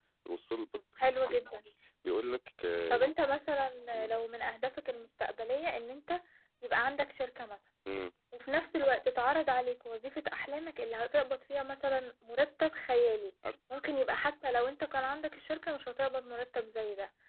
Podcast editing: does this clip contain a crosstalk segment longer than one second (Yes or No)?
No